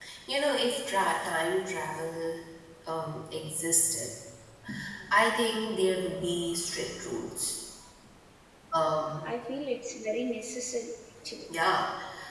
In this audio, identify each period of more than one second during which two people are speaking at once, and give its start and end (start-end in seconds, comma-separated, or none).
none